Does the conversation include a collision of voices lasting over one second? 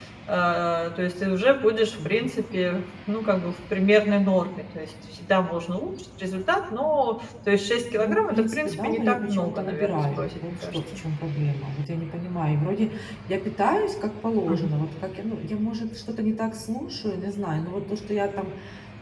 Yes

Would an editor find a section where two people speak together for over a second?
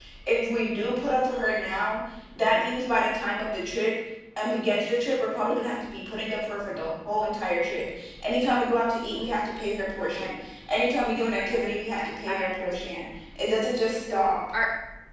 Yes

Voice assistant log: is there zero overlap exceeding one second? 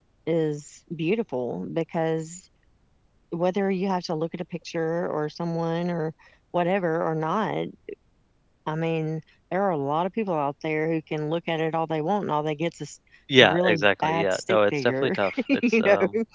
No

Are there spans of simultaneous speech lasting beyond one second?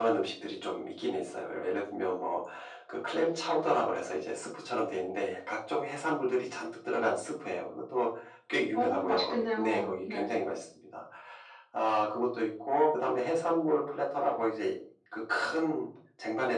Yes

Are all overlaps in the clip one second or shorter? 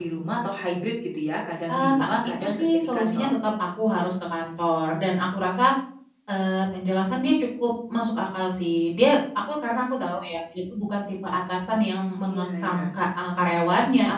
No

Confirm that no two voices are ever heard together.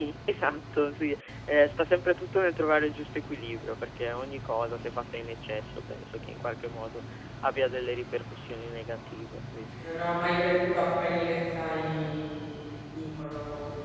Yes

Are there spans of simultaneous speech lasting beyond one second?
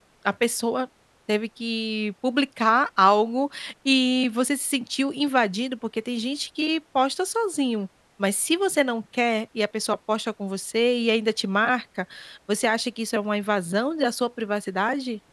No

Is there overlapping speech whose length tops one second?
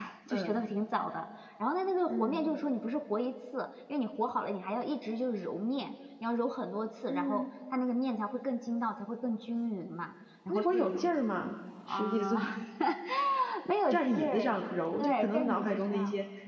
Yes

